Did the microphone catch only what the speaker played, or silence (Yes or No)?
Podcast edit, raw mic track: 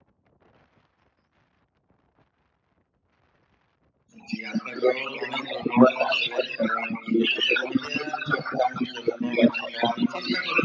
Yes